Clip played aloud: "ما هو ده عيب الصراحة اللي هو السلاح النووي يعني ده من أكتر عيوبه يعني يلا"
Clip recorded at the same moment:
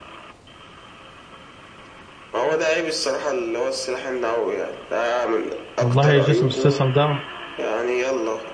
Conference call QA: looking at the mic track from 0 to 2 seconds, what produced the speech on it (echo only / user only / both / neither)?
neither